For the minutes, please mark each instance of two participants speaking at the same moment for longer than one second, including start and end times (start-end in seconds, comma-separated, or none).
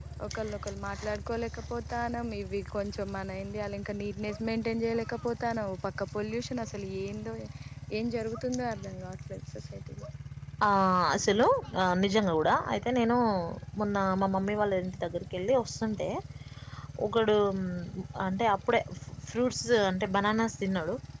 none